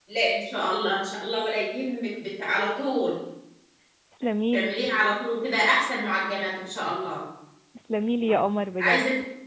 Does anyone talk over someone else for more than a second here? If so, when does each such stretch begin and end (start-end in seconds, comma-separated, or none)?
none